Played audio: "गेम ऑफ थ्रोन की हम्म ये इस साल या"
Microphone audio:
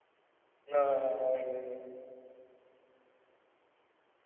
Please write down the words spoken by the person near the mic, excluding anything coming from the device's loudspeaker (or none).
हाँ हाँ हाँ, वही वही वही